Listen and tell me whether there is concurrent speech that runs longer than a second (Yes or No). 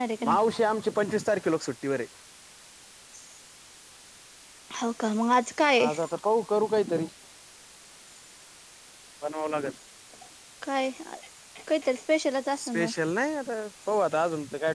No